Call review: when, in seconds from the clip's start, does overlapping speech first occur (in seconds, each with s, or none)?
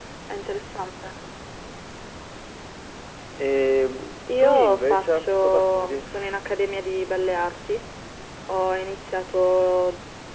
4.3 s